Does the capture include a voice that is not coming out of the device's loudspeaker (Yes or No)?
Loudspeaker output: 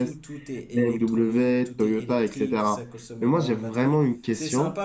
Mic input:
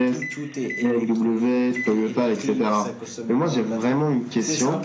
No